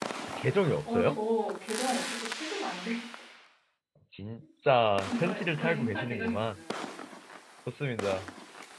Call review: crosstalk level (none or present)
present